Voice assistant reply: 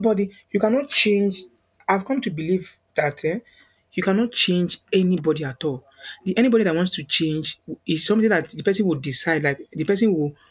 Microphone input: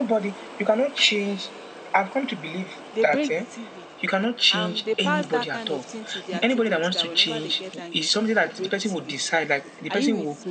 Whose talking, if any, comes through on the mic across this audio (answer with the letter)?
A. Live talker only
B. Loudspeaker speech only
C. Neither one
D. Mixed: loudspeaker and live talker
D